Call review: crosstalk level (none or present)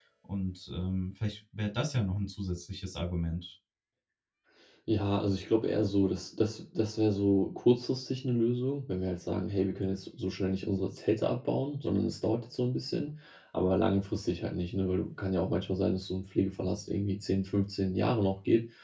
none